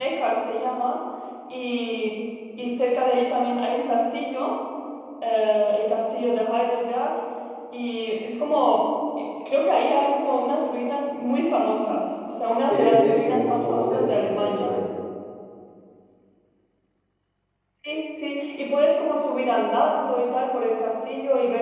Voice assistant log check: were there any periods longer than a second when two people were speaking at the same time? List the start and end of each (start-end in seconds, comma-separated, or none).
12.7-14.7